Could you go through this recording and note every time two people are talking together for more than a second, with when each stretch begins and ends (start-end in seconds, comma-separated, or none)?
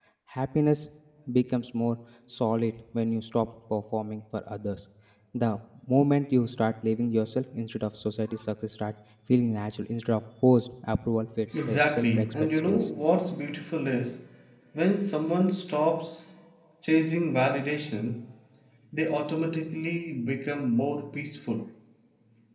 11.7-12.9